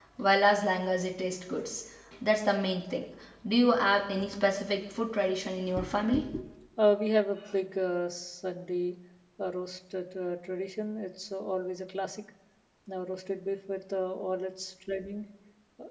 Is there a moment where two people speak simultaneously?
No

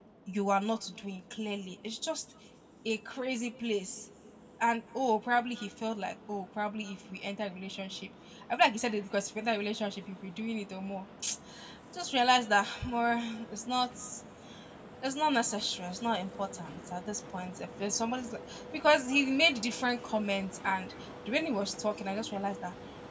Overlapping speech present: No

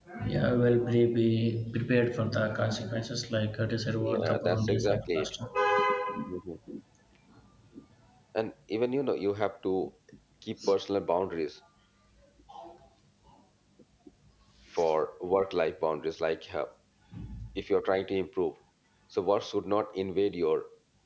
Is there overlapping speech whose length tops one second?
Yes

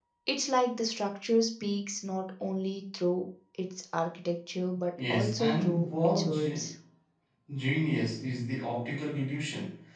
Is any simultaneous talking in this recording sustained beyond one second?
Yes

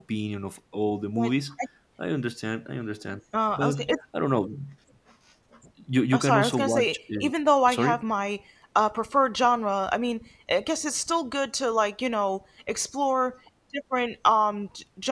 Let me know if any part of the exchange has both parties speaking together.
Yes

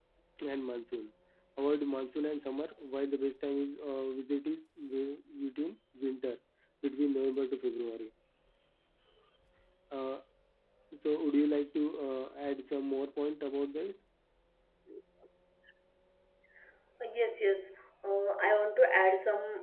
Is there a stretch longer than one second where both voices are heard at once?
No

